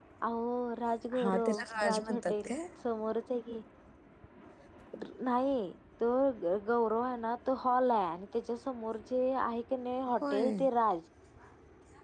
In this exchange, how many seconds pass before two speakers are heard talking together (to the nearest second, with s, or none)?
1 s